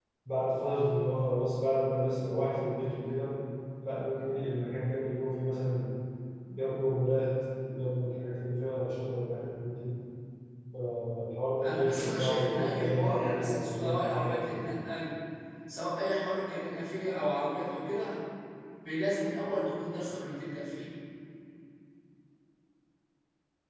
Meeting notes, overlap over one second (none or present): present